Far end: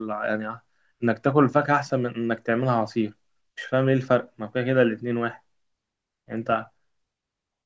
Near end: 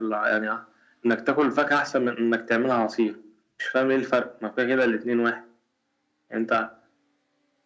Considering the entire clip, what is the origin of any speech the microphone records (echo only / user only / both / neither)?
echo only